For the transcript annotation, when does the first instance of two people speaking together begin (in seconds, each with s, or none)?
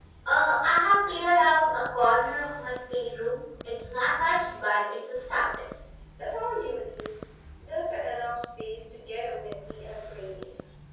none